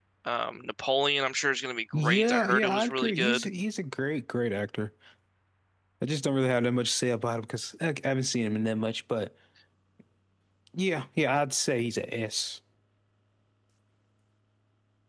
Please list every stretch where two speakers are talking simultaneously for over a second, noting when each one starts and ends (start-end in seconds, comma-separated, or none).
1.9-3.5